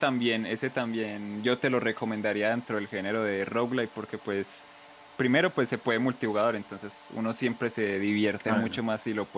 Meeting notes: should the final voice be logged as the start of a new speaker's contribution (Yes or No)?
No